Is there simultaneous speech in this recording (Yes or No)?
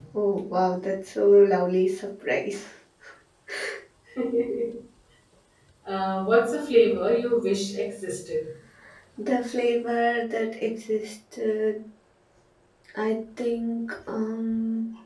No